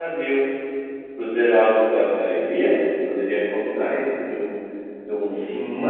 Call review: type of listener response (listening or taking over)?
taking over